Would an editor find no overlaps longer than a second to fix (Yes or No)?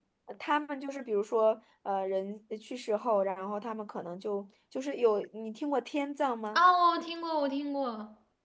Yes